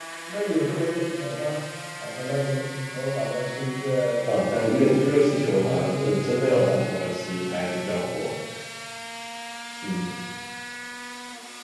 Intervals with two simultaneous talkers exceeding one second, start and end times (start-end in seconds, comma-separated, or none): 4.8-7.0